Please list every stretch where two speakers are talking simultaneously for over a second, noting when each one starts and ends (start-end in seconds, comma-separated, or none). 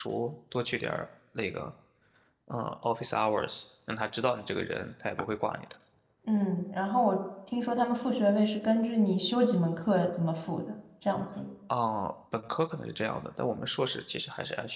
none